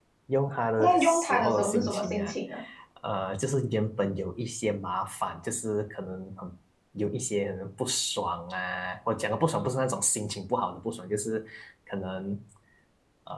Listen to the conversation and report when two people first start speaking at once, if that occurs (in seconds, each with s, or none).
0.8 s